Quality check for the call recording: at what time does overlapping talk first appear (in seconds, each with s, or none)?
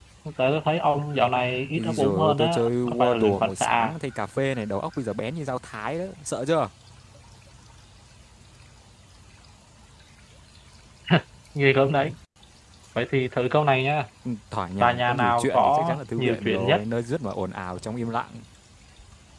1.8 s